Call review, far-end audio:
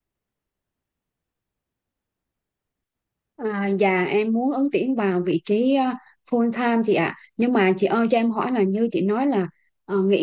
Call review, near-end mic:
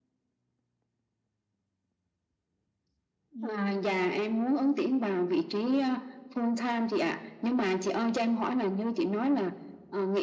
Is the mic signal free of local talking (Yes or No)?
No